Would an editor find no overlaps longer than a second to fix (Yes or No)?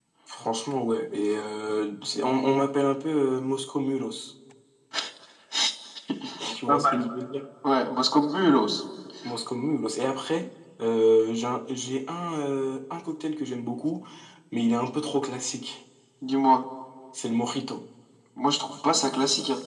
Yes